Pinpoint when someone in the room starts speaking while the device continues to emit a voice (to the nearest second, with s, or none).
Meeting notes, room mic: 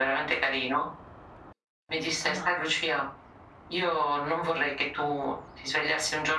2 s